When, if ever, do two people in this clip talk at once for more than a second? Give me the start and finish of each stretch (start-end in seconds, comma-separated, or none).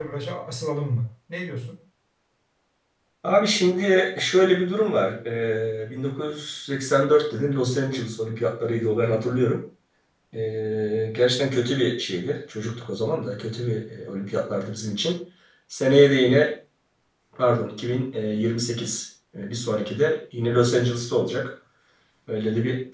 none